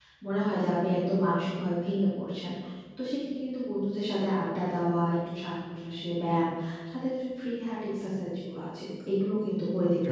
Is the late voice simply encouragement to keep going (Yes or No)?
Yes